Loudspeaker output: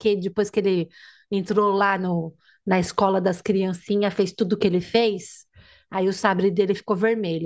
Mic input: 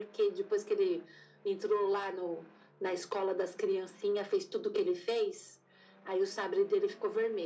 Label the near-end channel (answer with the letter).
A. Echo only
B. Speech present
A